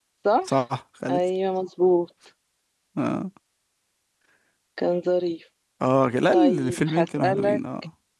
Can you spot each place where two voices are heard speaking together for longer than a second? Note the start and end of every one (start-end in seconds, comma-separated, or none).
6.3-7.6